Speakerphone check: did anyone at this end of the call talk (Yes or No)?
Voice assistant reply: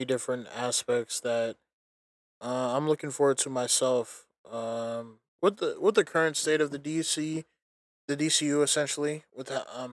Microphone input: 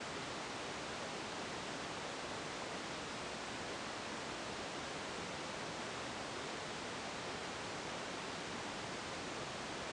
No